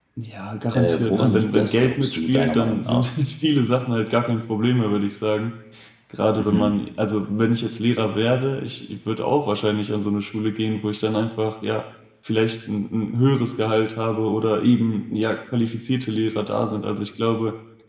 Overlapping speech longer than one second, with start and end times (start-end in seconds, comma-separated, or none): 0.7-3.1